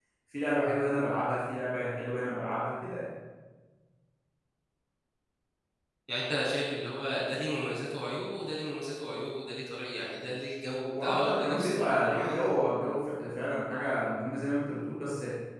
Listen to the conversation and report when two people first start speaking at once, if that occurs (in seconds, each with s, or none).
10.9 s